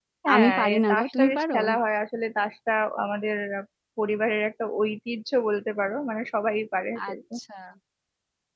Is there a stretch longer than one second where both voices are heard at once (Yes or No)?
Yes